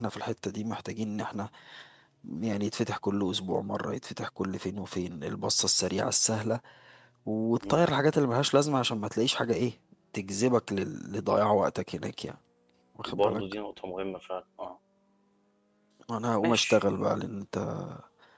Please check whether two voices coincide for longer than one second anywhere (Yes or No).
No